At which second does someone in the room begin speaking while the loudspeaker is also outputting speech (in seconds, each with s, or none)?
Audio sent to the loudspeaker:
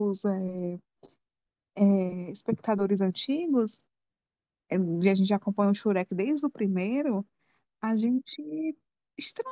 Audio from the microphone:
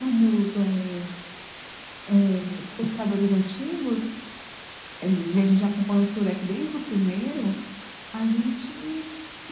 none